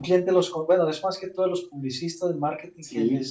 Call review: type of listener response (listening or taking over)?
listening